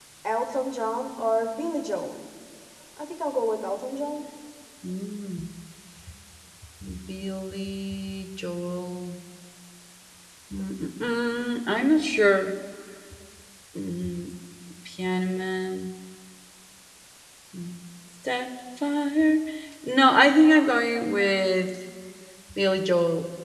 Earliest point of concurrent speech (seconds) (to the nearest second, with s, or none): none